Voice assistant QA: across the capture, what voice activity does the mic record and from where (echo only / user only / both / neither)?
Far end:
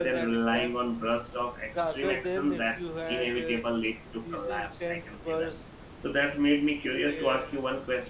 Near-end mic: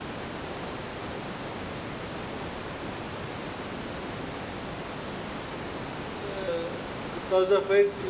user only